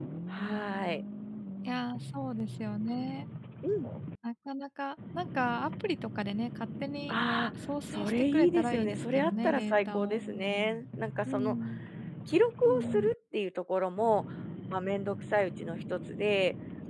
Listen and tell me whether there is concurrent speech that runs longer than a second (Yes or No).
Yes